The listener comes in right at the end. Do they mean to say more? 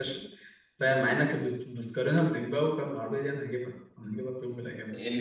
Yes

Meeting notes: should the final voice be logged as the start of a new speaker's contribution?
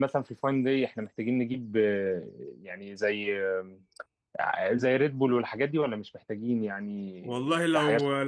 Yes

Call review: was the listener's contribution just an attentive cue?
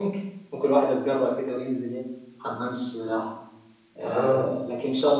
Yes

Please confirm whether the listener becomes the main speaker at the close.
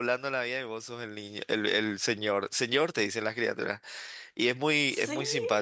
No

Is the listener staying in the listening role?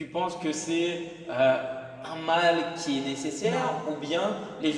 Yes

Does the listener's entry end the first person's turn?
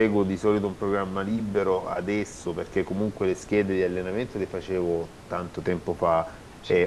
No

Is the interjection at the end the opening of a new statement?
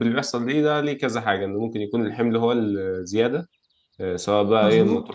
No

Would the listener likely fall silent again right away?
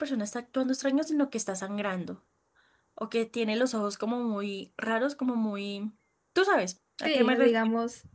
No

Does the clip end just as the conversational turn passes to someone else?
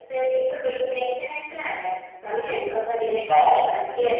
Yes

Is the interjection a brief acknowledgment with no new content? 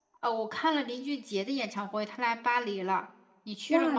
No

